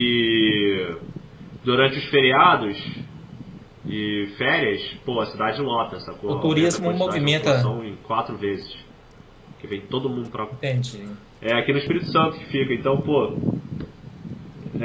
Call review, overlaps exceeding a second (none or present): present